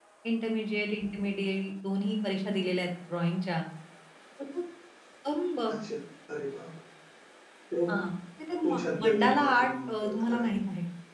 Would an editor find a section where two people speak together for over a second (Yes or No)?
Yes